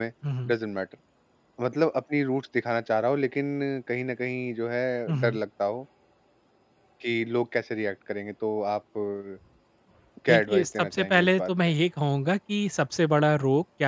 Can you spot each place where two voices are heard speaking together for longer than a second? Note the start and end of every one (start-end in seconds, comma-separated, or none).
10.3-11.7